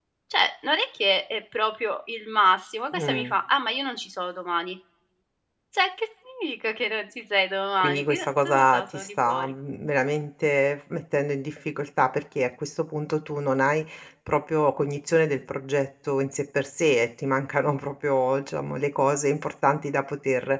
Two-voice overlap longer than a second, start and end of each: 7.8-9.5

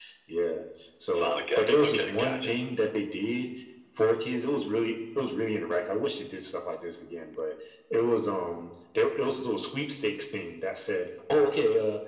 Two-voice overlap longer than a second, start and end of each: 1.1-2.5

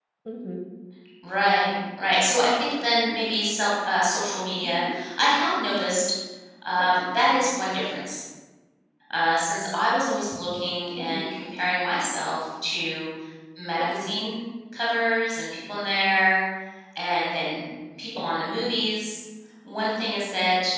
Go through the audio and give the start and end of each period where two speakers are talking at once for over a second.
none

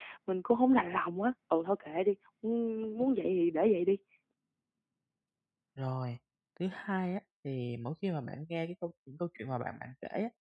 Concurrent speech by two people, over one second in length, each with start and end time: none

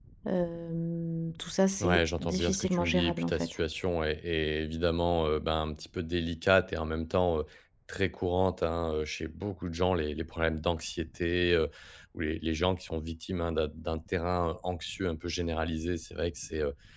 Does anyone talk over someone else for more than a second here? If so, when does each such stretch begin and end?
1.8-3.5

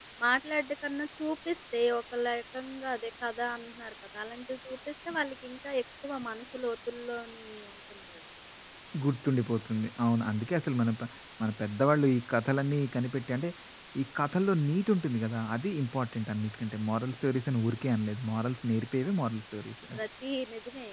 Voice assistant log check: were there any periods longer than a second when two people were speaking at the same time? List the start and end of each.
none

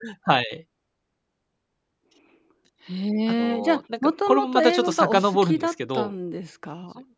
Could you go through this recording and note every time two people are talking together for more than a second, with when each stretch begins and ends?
3.3-6.1

